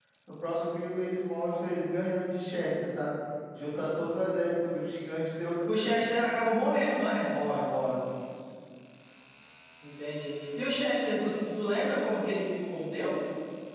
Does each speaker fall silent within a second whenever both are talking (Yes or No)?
Yes